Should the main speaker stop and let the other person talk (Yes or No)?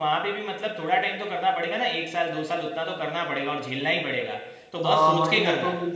Yes